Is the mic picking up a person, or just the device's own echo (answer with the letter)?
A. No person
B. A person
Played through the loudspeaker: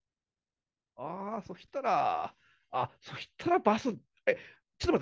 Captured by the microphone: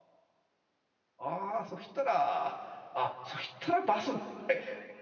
A